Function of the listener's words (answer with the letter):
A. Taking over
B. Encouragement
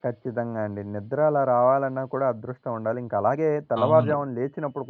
B